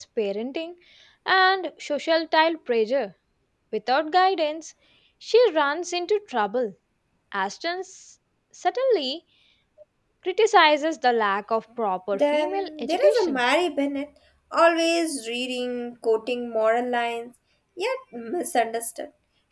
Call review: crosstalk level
present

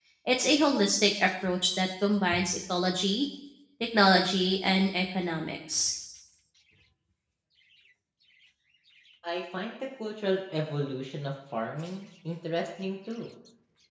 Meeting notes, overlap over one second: none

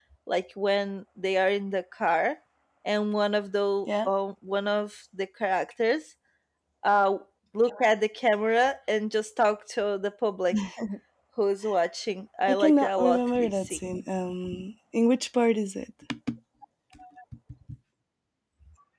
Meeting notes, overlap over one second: present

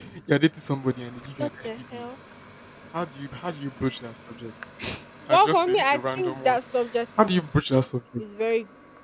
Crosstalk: present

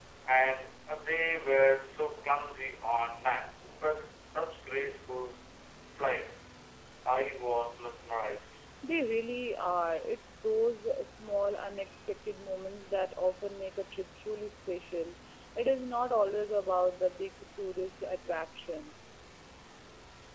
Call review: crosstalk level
none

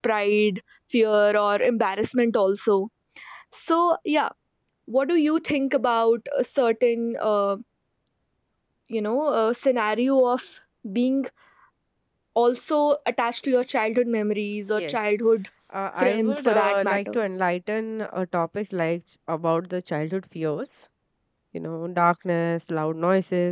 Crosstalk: present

